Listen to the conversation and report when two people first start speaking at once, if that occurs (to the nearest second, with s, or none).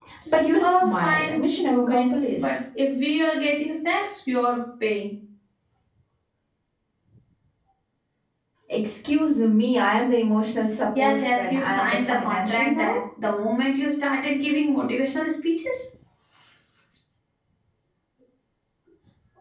1 s